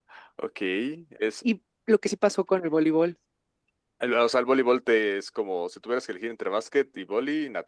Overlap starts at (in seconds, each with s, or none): none